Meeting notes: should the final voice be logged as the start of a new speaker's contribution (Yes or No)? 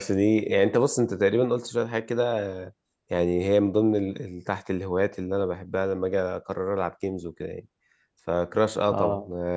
No